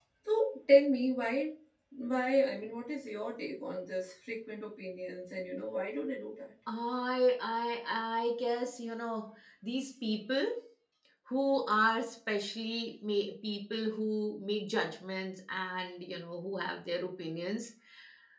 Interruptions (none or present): none